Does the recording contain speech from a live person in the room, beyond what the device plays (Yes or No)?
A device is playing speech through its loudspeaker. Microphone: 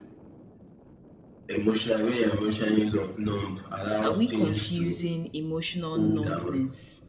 Yes